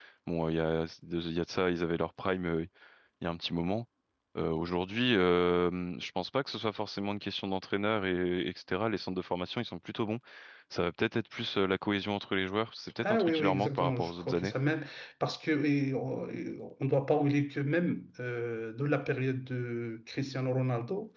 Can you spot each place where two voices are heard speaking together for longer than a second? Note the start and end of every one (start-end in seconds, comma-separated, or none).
13.0-14.5